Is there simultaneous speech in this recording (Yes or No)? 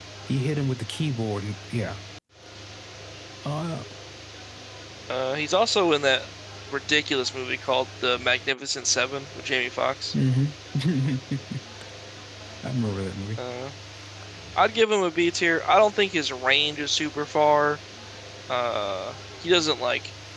No